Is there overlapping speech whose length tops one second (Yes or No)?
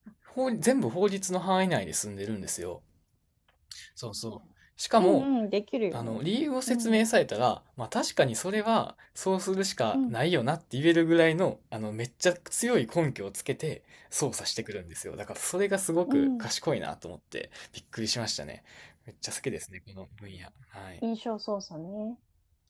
No